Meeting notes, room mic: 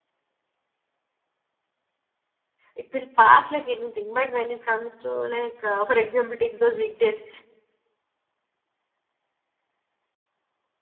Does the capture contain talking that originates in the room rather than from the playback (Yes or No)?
Yes